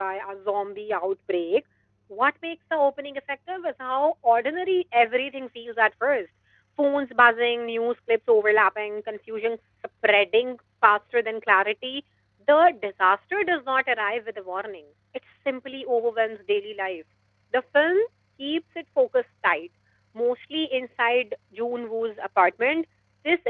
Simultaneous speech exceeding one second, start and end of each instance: none

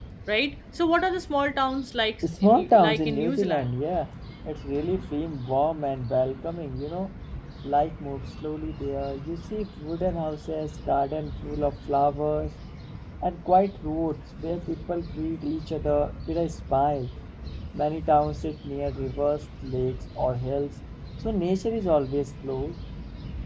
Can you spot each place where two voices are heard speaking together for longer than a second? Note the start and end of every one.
2.2-3.7

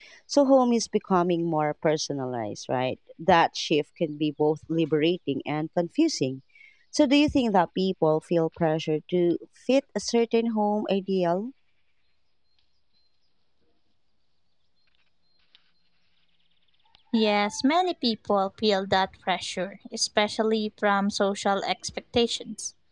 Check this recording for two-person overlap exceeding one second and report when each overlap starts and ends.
none

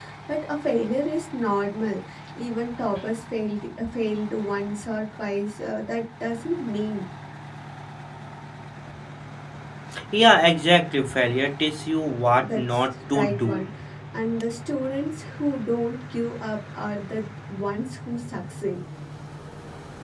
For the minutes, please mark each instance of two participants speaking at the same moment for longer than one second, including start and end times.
12.3-13.6

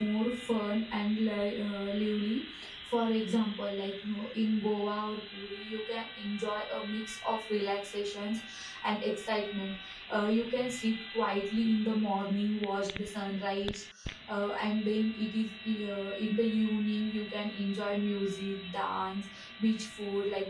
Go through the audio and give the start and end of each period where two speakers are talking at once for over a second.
none

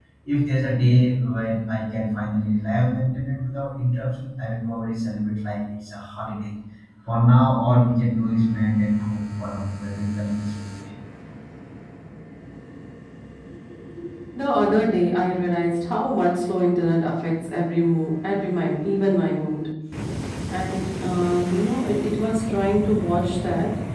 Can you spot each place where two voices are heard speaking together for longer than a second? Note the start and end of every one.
none

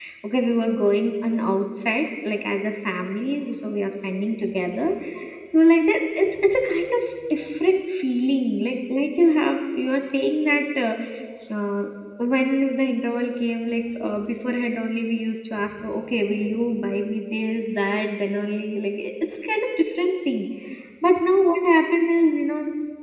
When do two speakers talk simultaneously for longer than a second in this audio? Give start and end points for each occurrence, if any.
none

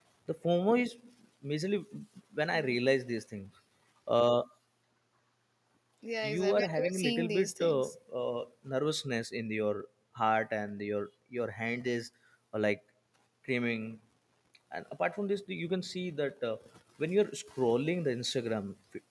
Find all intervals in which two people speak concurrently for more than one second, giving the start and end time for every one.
6.2-7.8

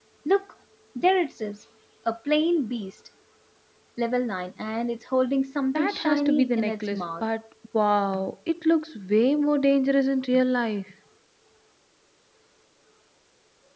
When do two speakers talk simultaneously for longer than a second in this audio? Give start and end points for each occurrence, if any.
5.8-7.1

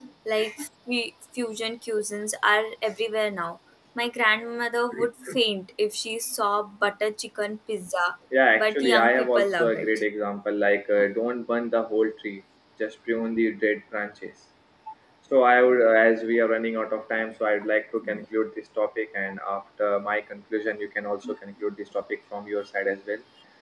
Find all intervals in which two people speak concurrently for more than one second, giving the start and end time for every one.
8.6-10.0

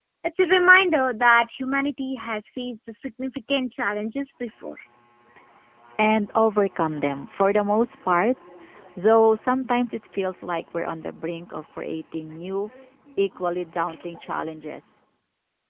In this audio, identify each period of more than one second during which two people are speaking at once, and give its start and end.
none

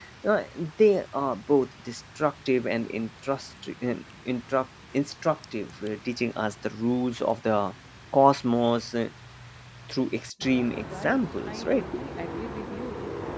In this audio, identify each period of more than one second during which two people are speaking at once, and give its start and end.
10.5-11.8

